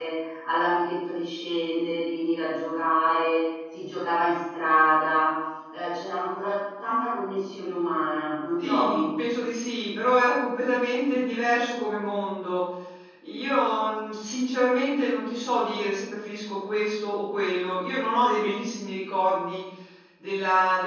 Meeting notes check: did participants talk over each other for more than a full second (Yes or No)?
No